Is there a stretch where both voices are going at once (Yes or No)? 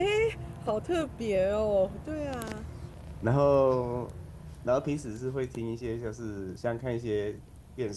No